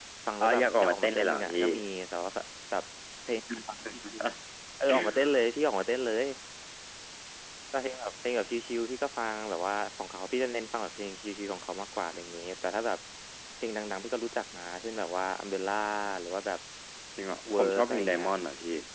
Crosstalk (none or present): present